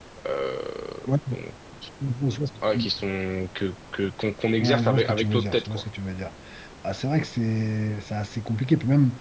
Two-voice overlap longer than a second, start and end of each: 4.6-5.8

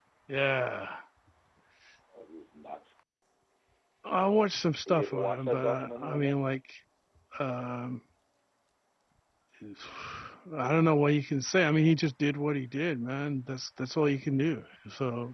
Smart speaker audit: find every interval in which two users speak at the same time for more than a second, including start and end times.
4.9-6.4

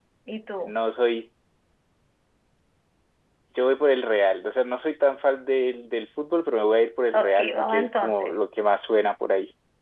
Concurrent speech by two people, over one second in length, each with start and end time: 7.1-8.3

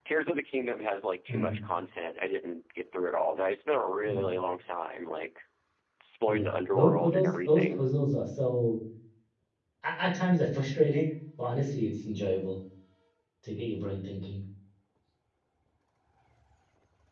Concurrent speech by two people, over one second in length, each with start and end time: 6.3-7.8

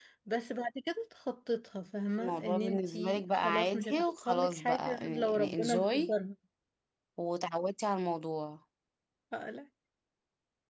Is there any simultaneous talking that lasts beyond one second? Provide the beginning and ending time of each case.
2.2-6.1

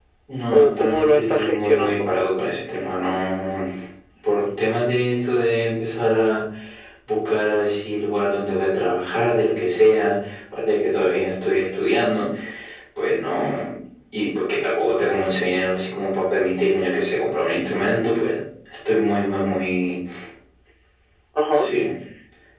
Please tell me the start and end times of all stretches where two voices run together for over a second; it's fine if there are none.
0.5-2.1

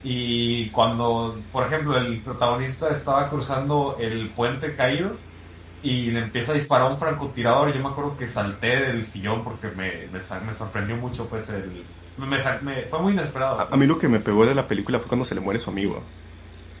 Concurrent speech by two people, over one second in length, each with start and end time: none

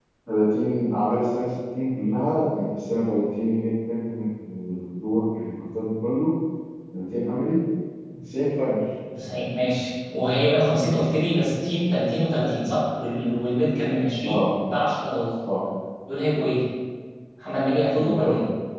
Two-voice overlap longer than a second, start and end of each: none

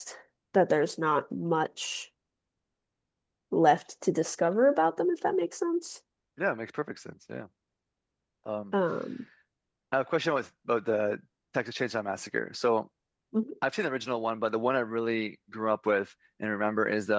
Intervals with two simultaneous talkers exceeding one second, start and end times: none

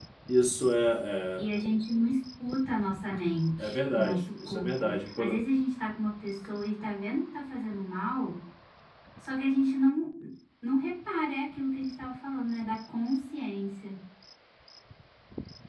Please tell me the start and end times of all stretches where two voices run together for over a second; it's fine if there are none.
3.6-5.5

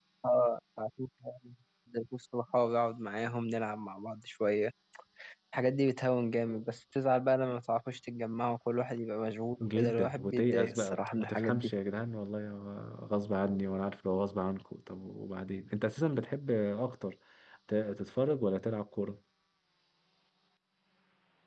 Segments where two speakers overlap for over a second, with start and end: 9.6-11.7

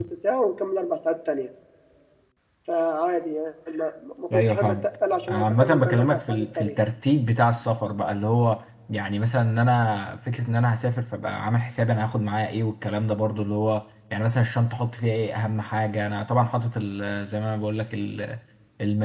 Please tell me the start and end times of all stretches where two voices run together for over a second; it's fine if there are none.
5.3-6.8

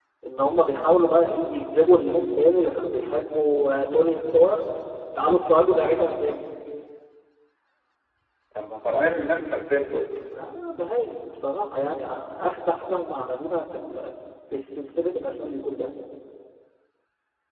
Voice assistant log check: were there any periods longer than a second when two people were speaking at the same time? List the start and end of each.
none

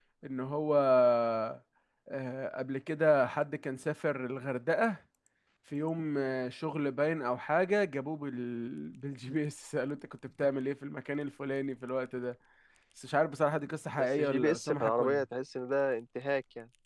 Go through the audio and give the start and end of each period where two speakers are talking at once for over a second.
14.0-15.2

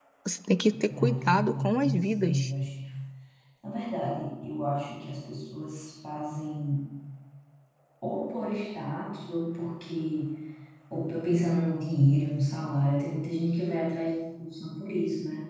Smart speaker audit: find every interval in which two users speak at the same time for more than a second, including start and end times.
0.8-2.5

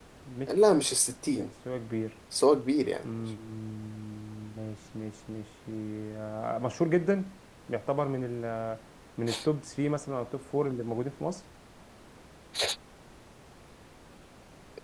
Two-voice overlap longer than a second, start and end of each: none

